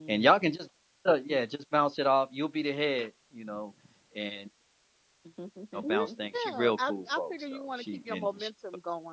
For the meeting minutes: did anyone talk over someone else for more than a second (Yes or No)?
Yes